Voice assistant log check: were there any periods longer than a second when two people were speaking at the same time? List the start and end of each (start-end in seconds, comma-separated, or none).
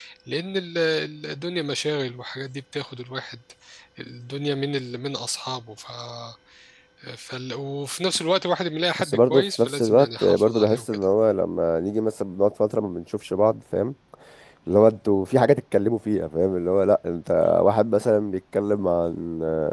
8.9-11.0